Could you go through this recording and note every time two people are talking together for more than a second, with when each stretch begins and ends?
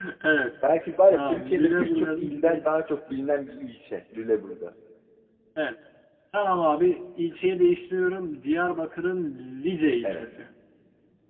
1.1-2.6

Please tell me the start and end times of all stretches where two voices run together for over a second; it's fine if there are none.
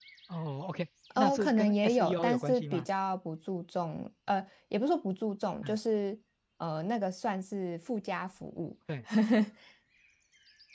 1.2-2.9

